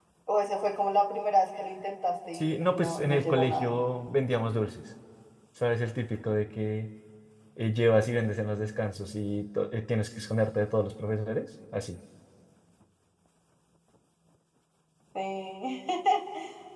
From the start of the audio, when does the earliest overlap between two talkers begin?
2 s

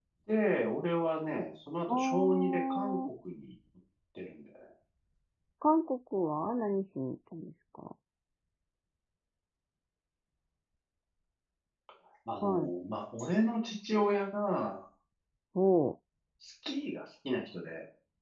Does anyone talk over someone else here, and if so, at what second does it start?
2 s

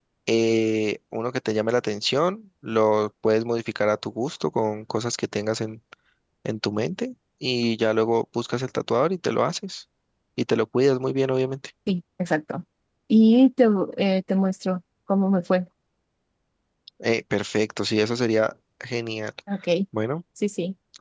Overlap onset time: none

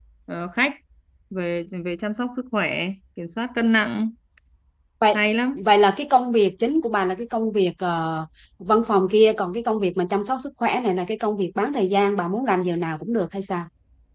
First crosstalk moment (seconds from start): none

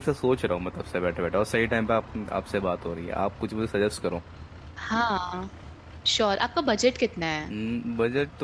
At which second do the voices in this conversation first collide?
none

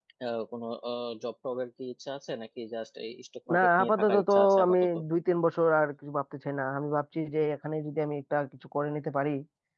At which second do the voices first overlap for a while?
3 s

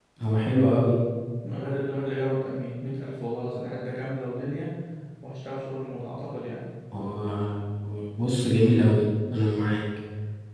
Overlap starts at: none

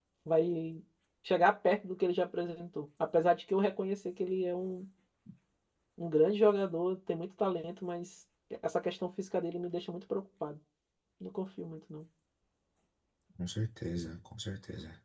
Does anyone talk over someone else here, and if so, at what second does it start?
none

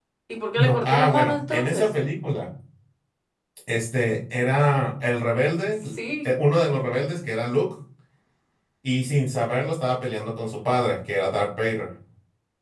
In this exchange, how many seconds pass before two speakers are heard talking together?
1 s

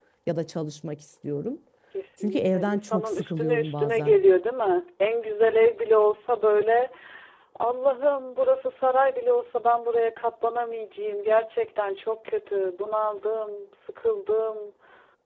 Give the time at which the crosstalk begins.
2 s

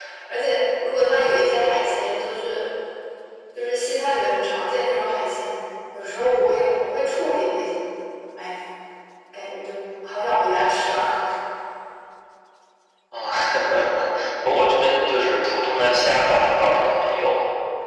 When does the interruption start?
none

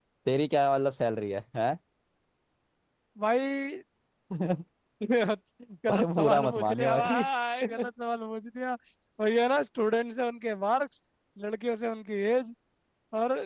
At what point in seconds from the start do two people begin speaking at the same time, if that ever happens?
6 s

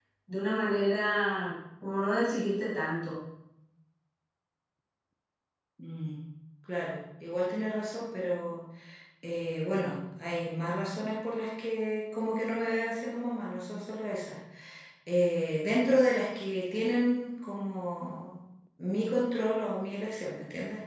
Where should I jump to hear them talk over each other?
none

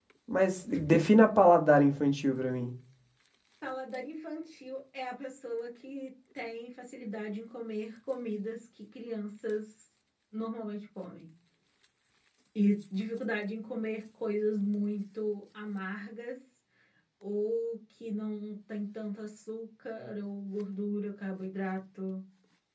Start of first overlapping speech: none

